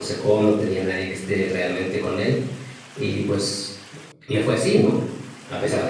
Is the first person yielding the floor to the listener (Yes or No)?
No